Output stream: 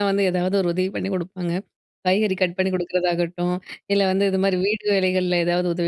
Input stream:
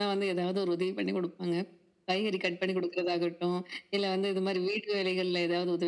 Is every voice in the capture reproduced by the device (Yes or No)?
Yes